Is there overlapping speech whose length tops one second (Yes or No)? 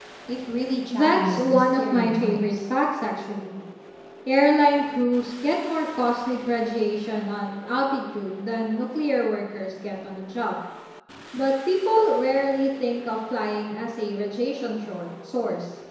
Yes